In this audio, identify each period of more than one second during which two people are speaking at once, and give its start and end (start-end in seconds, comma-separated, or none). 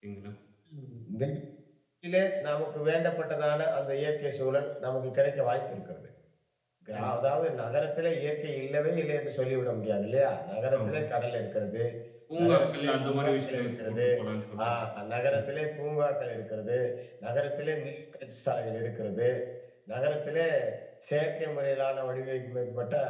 12.4-14.1